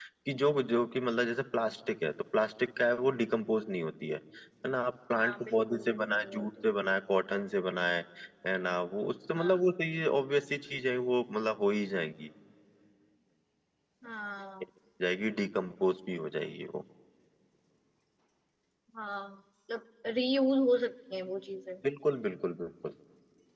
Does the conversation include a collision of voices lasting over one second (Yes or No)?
Yes